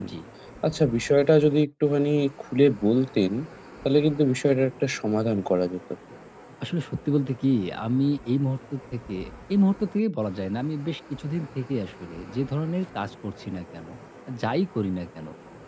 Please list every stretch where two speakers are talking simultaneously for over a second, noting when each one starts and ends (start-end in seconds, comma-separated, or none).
none